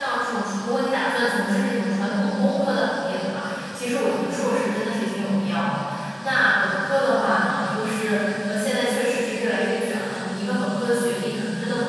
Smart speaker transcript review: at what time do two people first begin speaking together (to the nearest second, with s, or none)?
none